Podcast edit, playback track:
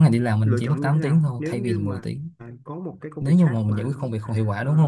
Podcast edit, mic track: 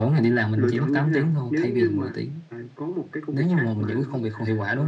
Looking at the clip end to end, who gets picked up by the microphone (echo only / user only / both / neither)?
echo only